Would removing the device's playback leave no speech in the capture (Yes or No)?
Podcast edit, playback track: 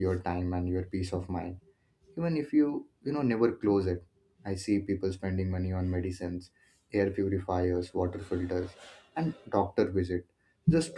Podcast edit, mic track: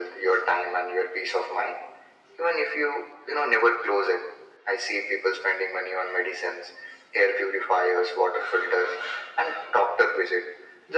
Yes